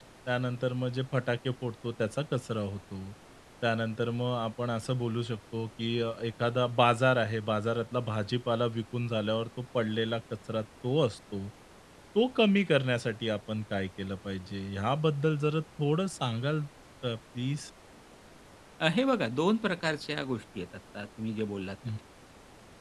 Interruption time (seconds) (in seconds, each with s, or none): none